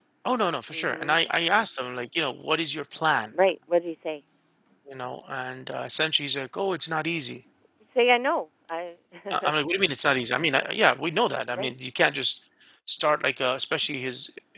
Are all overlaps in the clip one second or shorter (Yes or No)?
Yes